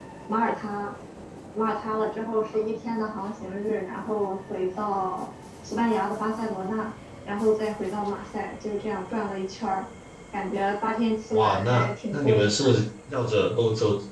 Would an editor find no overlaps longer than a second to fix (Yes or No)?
No